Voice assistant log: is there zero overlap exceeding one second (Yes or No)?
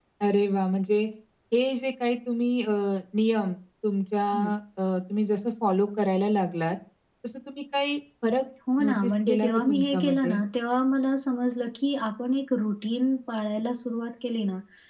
No